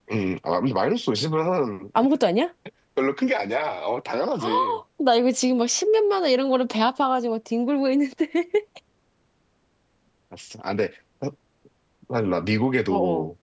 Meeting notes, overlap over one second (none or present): none